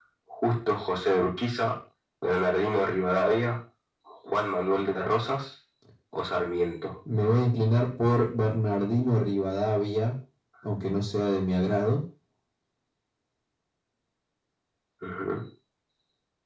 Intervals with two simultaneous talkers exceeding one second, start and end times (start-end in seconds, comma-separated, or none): none